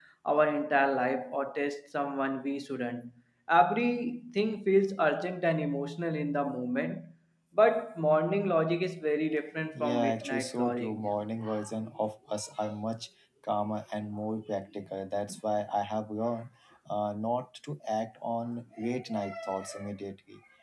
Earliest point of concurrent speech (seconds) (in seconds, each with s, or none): 9.7 s